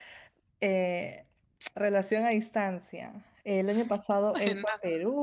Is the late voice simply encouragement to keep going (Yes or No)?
Yes